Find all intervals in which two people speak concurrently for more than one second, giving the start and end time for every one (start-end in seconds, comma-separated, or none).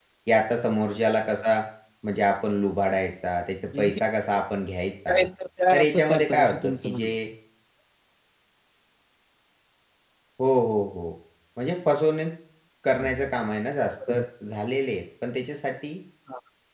5.7-7.2